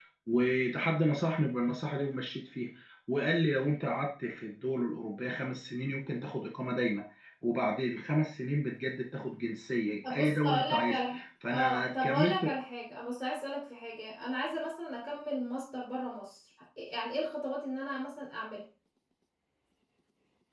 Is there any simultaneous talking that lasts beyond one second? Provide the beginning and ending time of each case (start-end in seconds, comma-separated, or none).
10.1-12.5